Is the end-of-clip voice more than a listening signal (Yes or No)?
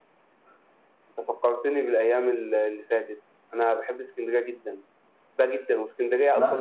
No